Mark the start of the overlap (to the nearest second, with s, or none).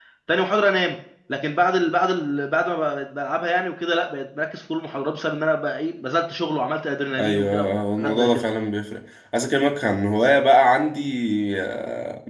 7 s